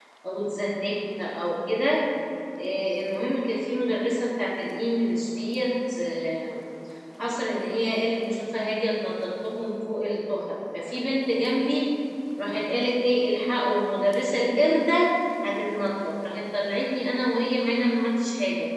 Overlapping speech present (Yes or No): No